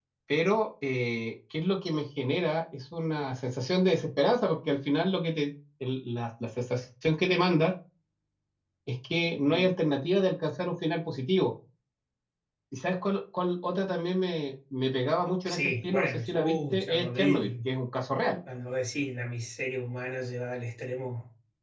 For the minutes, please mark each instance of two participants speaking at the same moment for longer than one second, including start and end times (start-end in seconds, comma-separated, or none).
15.4-17.7